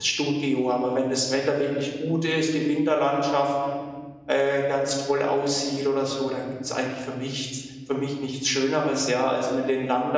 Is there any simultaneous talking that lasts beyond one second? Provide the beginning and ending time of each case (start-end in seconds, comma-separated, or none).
none